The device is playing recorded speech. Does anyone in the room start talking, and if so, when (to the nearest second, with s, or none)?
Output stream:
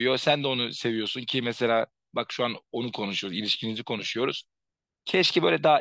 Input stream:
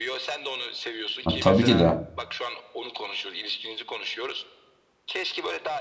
1 s